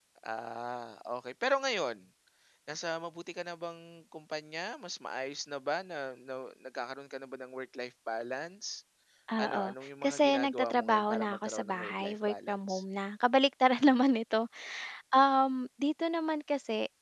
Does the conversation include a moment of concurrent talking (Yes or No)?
Yes